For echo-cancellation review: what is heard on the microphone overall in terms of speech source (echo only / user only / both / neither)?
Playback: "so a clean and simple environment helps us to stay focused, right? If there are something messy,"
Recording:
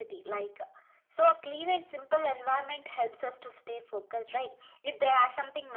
echo only